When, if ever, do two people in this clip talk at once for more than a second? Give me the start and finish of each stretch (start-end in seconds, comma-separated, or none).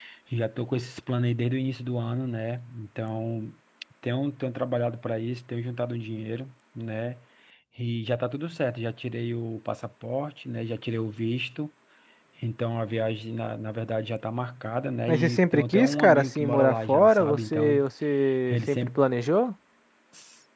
15.1-17.9